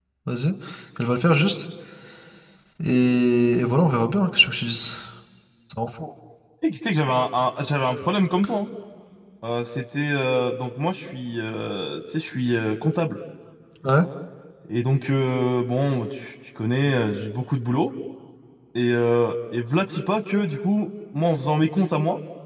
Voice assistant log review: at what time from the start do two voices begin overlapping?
none

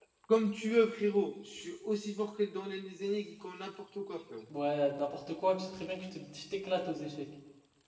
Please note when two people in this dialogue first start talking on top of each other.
none

